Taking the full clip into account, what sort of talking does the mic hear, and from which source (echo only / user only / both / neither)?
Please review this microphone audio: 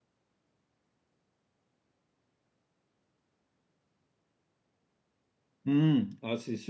user only